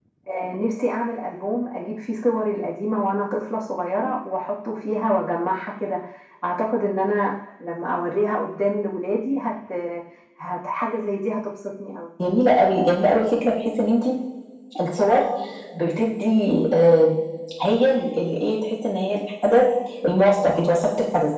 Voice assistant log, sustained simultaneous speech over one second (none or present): none